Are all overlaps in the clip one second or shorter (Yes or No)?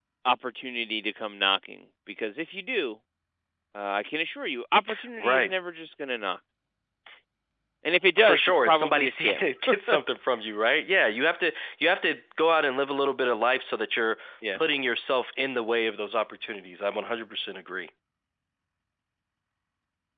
No